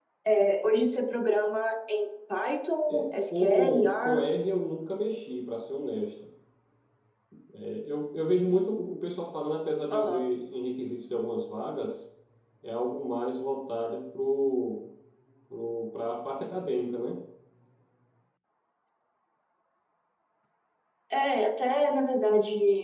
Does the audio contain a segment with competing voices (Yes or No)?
Yes